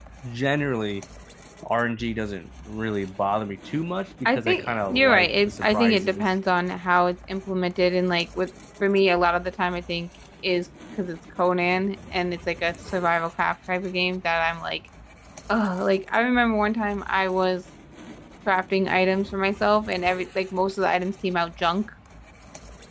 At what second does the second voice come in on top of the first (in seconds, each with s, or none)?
4.2 s